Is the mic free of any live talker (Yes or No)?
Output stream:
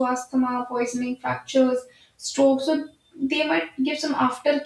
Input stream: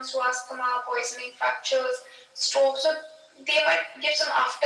Yes